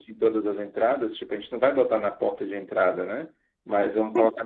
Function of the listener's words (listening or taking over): listening